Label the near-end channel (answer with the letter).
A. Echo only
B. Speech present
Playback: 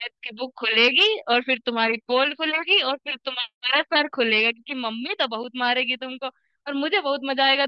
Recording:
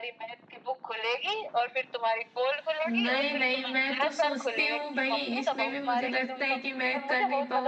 B